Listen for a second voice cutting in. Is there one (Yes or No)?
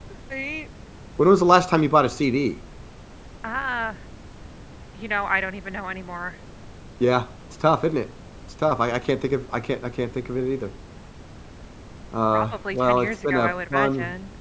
Yes